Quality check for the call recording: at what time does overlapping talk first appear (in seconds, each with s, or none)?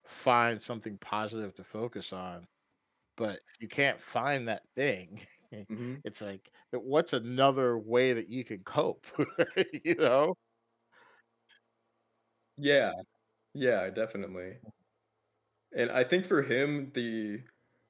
none